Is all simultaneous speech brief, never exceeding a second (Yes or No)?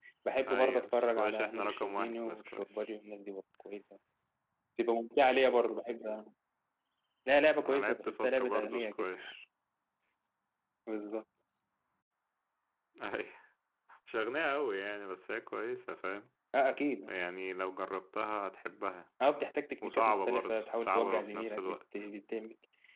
No